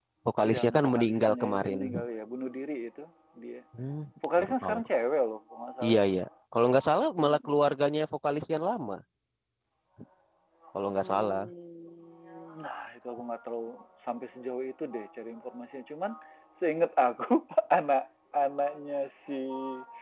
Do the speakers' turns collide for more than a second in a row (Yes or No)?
Yes